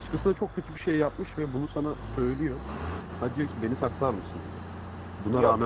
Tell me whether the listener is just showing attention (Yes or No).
No